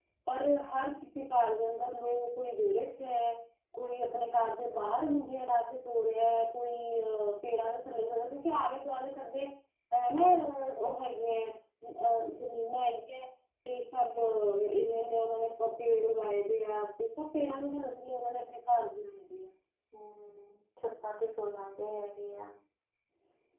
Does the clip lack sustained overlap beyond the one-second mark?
Yes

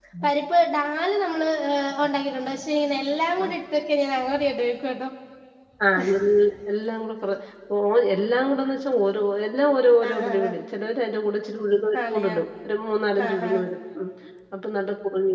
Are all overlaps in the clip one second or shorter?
Yes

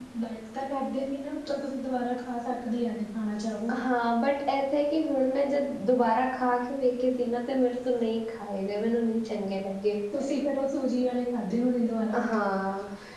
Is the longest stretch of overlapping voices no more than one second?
Yes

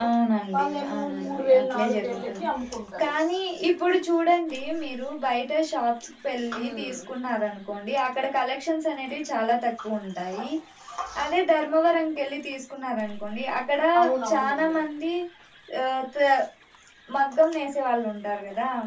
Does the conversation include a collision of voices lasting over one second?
Yes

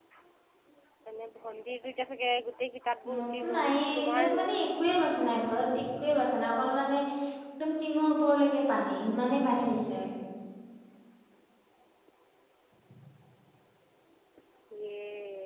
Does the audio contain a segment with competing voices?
Yes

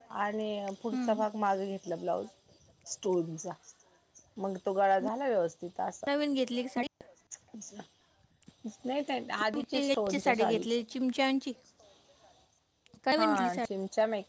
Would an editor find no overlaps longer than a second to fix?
No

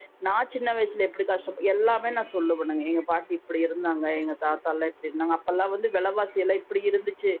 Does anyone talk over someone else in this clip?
No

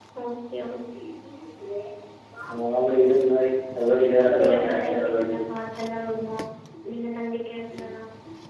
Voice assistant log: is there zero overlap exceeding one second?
No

